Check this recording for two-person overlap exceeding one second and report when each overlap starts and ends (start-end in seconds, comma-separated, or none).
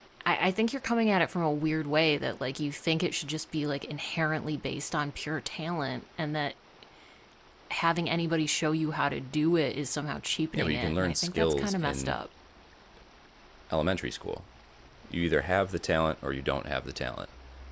10.6-12.2